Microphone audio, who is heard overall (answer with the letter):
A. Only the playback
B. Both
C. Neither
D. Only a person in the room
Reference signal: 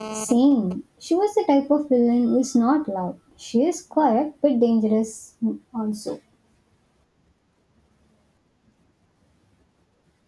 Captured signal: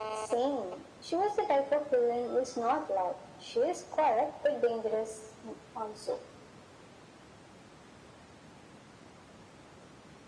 A